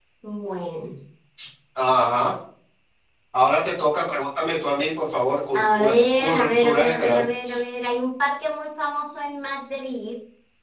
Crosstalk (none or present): present